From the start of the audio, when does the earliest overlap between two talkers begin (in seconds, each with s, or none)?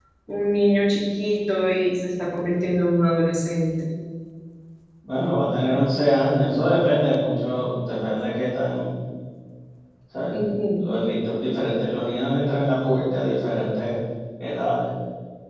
none